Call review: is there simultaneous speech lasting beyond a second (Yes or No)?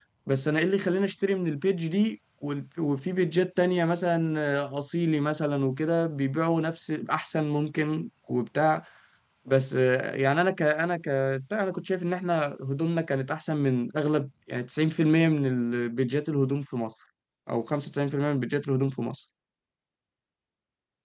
No